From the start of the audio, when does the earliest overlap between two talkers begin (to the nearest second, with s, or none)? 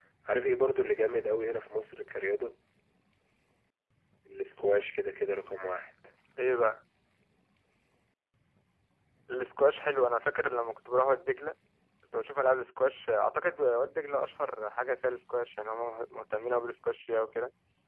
none